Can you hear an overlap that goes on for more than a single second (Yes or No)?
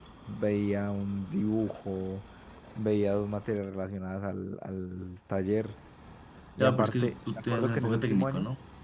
Yes